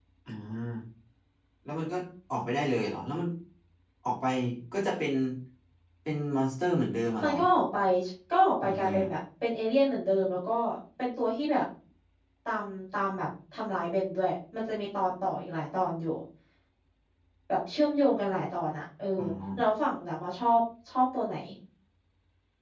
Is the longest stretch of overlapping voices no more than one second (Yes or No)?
Yes